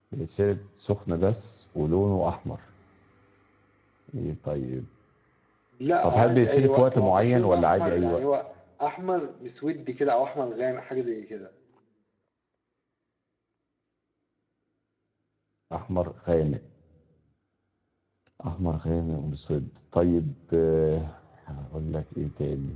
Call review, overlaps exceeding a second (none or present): present